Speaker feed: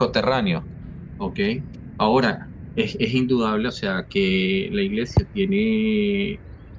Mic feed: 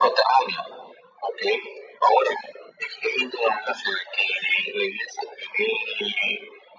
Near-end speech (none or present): none